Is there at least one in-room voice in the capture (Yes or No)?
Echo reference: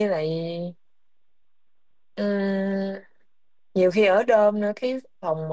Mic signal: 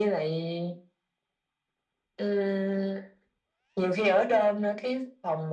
No